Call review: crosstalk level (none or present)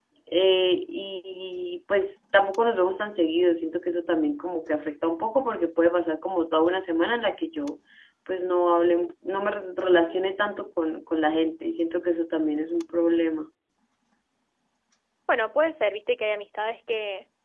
none